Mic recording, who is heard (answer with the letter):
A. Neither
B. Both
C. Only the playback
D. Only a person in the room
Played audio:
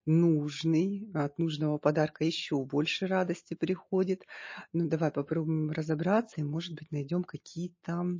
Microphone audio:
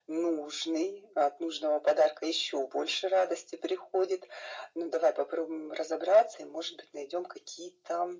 C